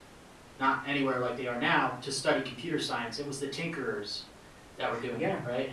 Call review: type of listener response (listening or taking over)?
taking over